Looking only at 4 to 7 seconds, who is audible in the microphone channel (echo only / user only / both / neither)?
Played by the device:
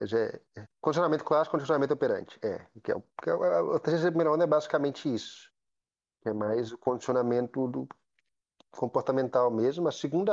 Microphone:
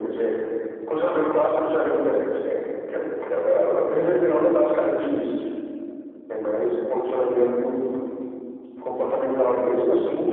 echo only